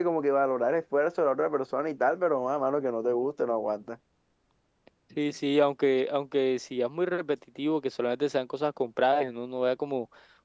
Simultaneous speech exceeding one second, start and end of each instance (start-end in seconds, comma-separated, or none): none